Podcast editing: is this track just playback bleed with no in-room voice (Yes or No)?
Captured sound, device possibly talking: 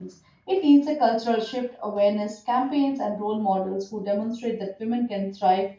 No